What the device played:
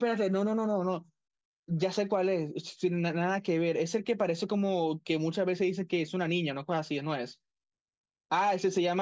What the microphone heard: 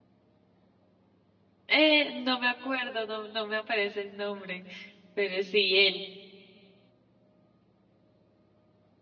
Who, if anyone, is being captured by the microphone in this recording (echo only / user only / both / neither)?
user only